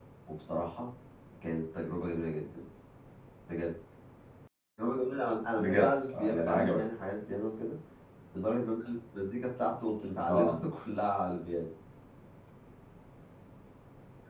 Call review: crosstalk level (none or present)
present